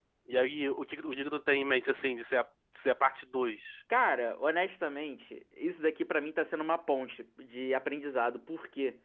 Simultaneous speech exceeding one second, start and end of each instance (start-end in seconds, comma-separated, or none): none